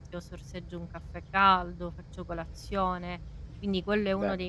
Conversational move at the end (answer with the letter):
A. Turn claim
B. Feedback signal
B